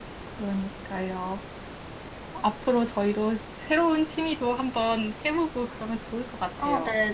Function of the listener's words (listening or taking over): taking over